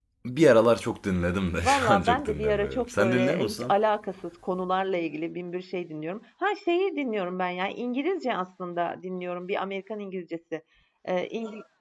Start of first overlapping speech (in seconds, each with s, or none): 1.6 s